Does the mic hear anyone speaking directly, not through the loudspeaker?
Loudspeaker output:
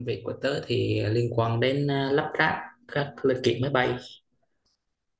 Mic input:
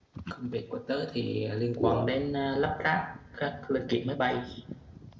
Yes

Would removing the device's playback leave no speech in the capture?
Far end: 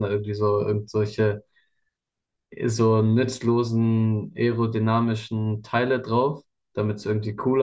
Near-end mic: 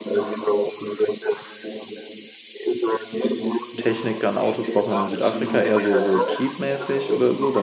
No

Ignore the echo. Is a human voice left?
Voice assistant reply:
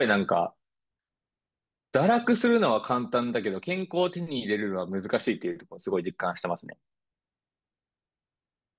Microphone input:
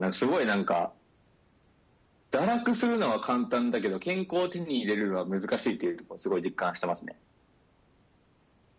No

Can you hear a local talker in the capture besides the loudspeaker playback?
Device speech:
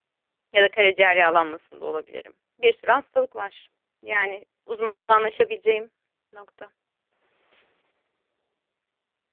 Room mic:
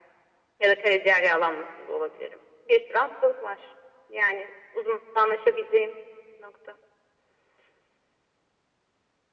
No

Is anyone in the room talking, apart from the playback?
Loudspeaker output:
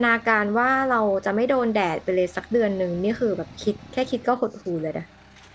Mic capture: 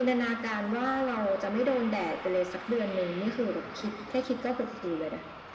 No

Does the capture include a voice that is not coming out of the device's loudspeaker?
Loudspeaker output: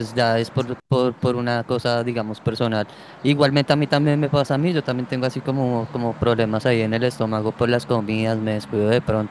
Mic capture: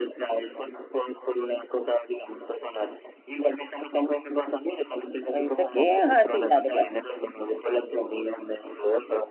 Yes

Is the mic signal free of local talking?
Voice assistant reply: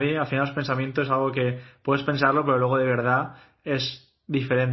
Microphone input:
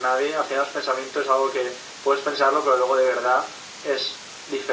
Yes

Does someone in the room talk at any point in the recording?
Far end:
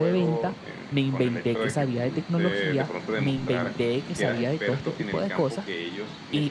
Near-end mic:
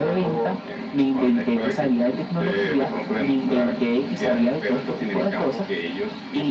No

